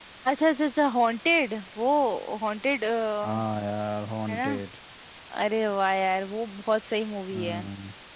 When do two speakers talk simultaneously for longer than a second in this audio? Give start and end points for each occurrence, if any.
none

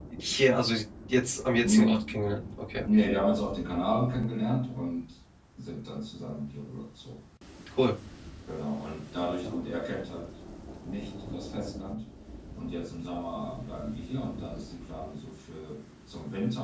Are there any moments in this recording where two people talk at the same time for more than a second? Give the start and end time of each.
none

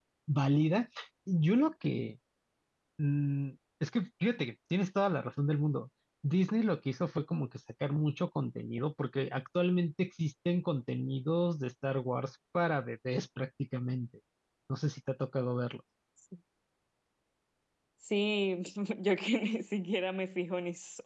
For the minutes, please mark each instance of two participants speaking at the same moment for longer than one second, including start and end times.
none

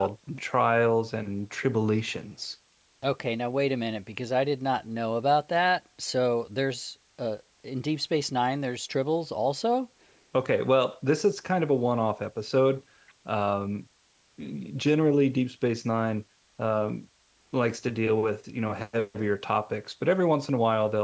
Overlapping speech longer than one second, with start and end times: none

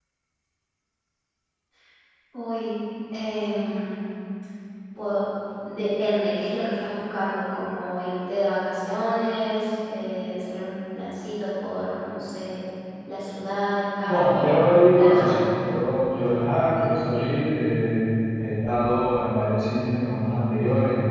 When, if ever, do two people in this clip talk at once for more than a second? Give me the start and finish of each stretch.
14.0-15.4

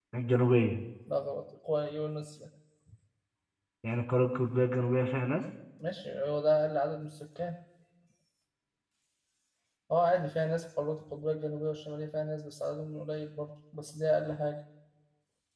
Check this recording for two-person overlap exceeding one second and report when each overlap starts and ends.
none

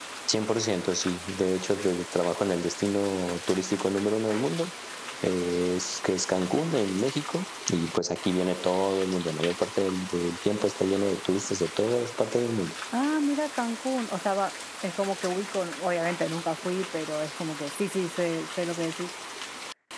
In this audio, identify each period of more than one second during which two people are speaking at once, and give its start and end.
none

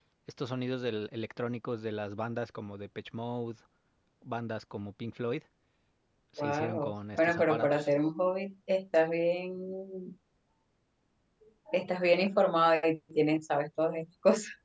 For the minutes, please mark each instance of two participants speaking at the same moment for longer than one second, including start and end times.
6.4-7.9

